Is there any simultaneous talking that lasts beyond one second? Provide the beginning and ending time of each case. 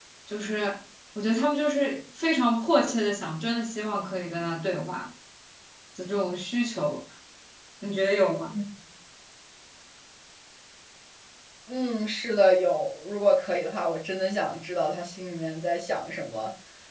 none

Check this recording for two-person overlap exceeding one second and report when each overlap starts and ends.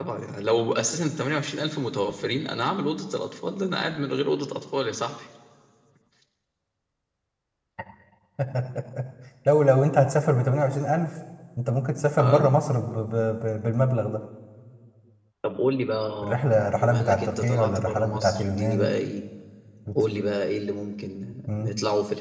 16.8-18.9

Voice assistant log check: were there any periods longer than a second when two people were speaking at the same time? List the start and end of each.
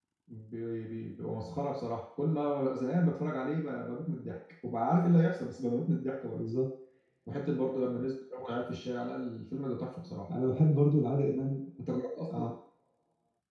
none

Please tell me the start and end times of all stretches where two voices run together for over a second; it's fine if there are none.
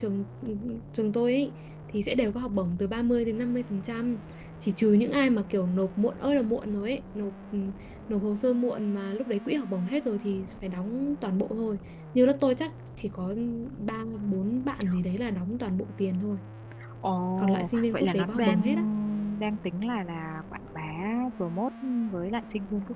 17.4-18.6

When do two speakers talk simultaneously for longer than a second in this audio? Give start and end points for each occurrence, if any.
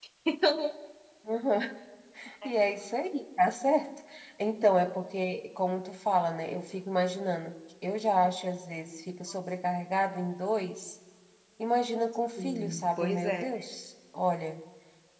12.4-13.6

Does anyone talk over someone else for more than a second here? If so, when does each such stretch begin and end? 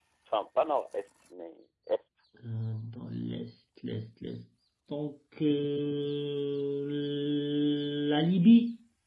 none

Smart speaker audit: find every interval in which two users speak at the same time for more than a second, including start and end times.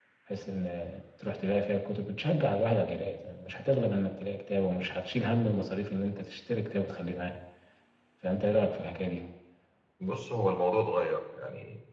none

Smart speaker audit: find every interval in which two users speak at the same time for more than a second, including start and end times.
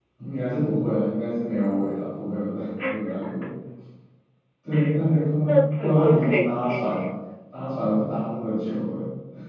5.5-7.0

